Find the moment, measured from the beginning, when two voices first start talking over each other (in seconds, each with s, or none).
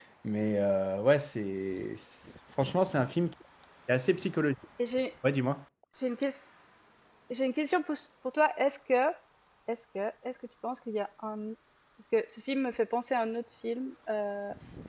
none